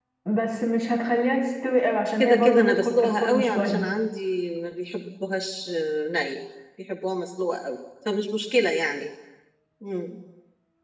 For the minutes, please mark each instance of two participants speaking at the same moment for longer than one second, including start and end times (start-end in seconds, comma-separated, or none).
2.2-3.9